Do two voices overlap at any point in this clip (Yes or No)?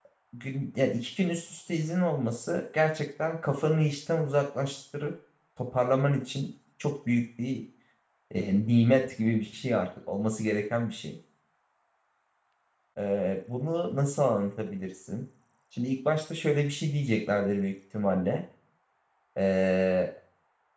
No